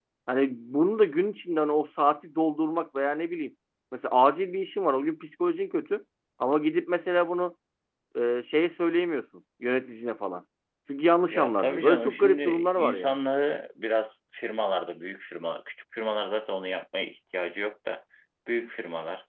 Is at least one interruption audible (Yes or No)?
Yes